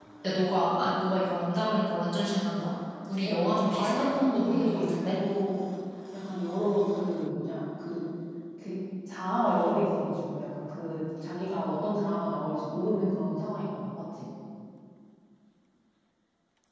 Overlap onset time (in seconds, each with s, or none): 3.2 s